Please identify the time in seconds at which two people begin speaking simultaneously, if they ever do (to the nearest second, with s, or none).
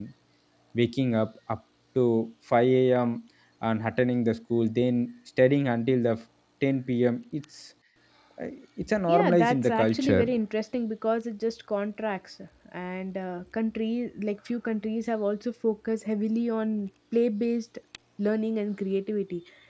9 s